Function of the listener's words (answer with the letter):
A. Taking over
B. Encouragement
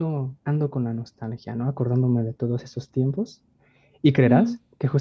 B